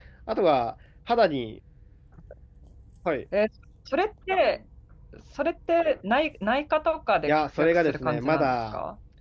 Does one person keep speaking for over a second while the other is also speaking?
Yes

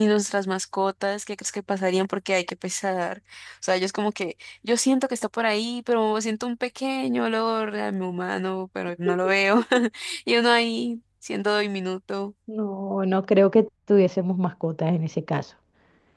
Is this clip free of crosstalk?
Yes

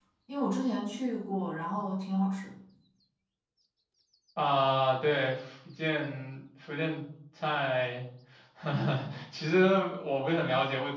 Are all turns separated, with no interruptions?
Yes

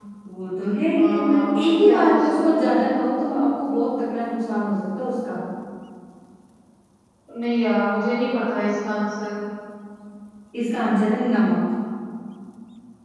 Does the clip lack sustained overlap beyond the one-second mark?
No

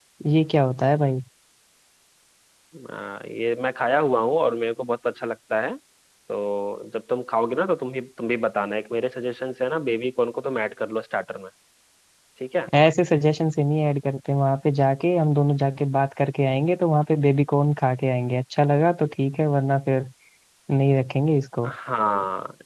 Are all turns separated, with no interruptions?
Yes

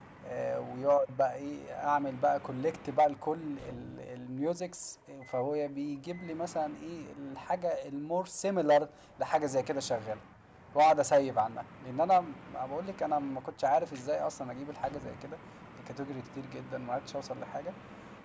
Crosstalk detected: No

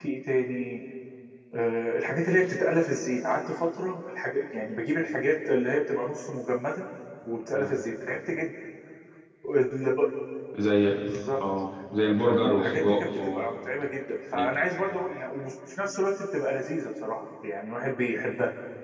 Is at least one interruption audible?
Yes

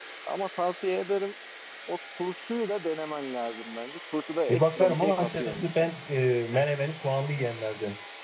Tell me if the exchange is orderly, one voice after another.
No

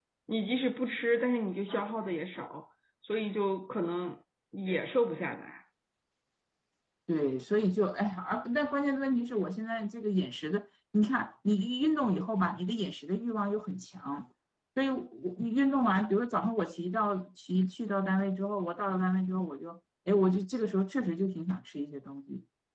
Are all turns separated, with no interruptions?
Yes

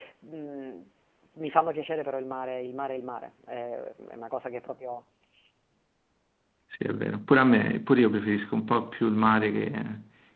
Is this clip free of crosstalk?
Yes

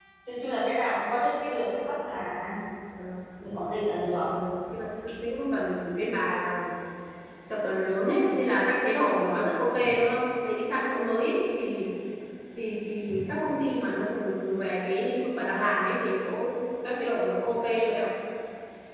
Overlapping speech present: No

